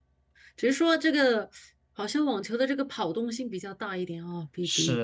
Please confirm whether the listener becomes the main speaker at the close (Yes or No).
Yes